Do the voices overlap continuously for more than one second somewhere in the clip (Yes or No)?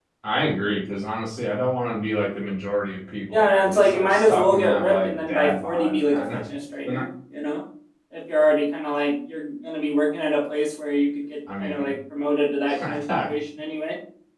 Yes